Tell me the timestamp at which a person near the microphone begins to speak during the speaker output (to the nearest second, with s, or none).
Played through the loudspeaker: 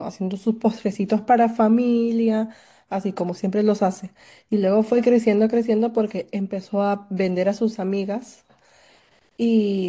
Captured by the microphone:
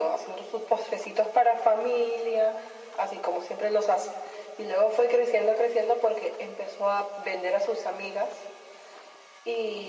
none